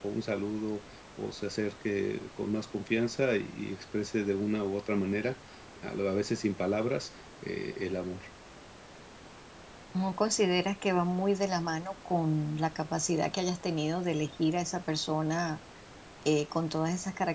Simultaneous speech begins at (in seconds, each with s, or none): none